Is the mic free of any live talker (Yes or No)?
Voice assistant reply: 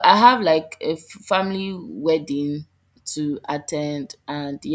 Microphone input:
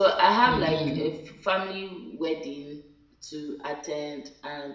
No